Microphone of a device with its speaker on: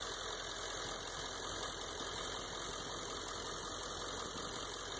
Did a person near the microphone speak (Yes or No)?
No